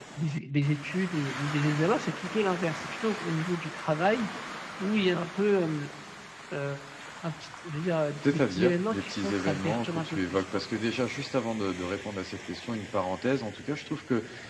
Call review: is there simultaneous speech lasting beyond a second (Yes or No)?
Yes